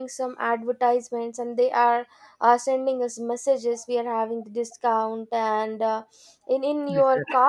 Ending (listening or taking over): listening